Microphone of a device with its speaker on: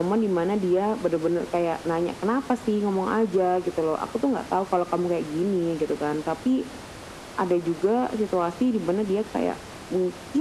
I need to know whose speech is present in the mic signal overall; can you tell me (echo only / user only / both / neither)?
echo only